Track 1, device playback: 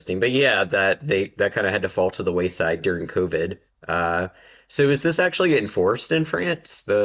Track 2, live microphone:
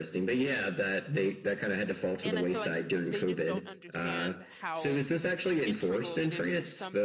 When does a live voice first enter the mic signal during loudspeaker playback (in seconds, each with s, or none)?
2.2 s